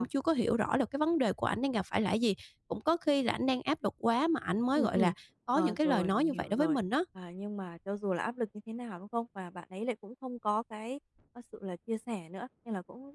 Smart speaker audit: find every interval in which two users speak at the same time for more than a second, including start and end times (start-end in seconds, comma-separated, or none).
5.5-6.8